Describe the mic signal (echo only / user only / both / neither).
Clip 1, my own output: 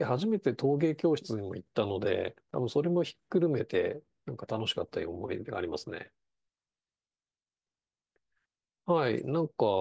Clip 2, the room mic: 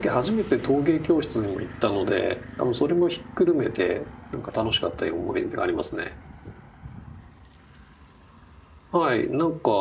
echo only